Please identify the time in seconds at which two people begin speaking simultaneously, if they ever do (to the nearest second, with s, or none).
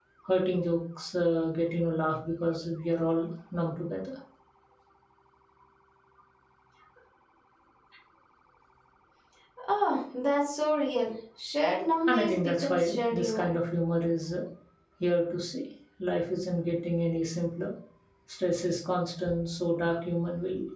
12 s